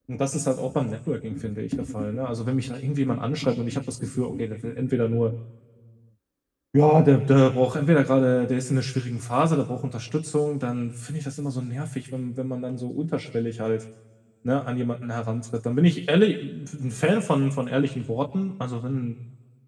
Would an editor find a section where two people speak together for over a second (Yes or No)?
No